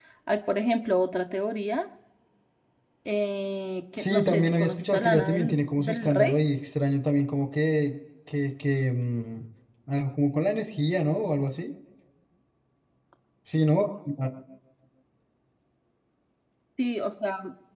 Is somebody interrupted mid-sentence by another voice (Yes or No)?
Yes